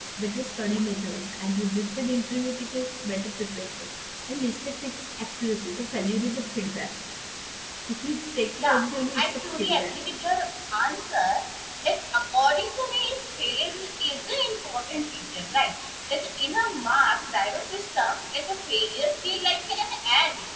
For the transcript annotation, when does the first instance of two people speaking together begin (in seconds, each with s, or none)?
8.6 s